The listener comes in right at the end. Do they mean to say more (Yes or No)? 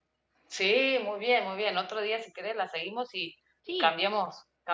No